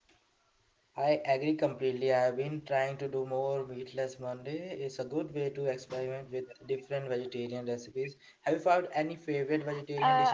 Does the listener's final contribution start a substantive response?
Yes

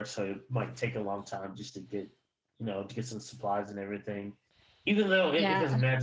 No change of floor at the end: Yes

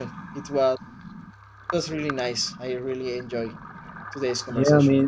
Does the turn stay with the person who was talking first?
No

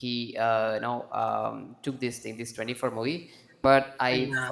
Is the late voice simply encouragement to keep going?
Yes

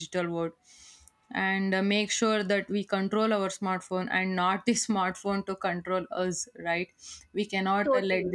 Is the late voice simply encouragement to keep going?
Yes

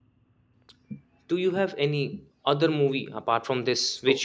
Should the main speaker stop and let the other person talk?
No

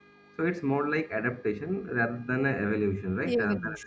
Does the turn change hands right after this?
Yes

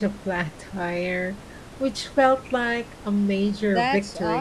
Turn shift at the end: Yes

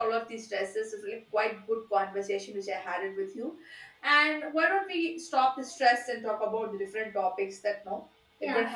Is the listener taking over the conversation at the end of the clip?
Yes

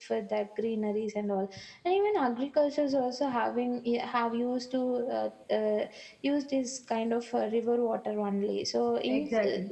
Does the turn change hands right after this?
No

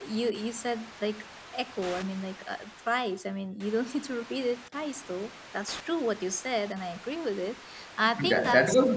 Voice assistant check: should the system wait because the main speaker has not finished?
No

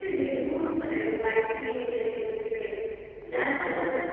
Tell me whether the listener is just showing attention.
Yes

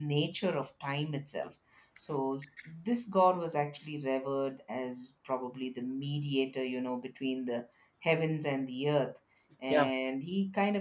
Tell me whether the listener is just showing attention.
Yes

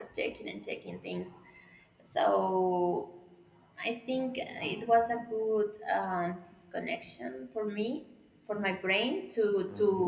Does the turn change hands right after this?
Yes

